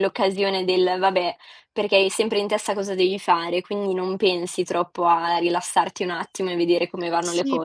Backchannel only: No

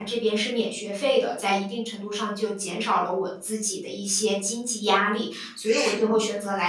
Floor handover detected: No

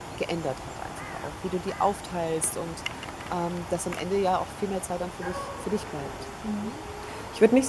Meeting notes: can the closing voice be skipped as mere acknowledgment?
No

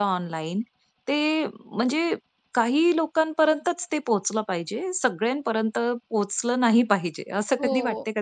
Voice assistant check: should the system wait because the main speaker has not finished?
No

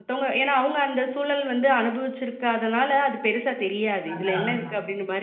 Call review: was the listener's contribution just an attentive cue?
Yes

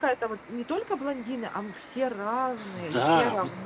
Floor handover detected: Yes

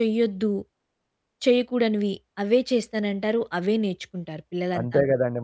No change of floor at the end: No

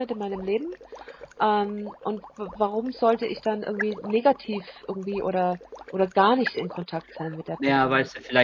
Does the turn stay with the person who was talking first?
No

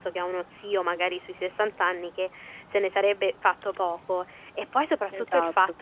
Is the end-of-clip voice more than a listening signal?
No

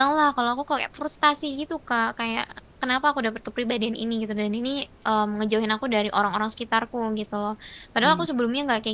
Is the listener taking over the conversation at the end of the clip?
No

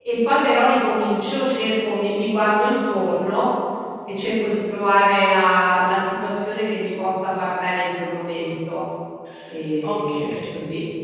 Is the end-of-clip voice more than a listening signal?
Yes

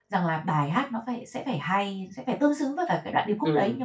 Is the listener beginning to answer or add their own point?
Yes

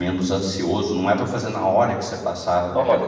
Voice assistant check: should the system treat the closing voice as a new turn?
Yes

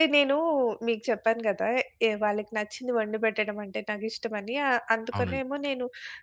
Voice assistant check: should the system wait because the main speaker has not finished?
Yes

